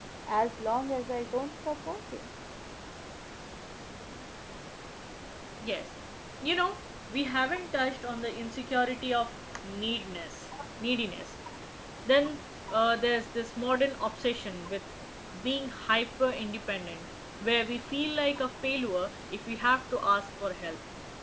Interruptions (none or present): none